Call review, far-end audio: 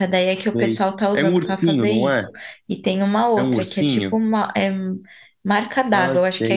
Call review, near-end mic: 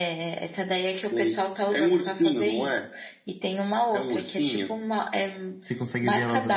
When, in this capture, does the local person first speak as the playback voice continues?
6 s

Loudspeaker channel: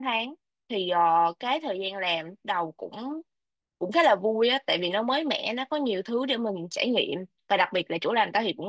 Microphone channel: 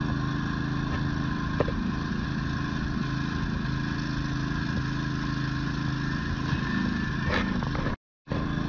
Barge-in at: none

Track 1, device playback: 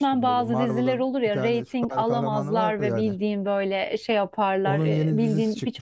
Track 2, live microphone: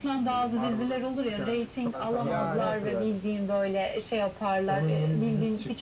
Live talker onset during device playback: 2 s

